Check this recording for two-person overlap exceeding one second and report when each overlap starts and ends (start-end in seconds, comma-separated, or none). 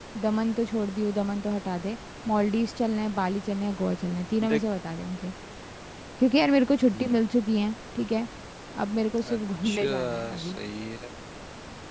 9.2-10.6